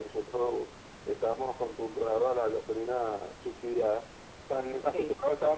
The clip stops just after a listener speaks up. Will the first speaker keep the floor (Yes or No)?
Yes